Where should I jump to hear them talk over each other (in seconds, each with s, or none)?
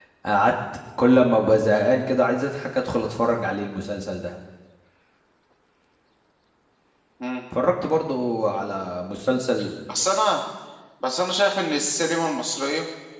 none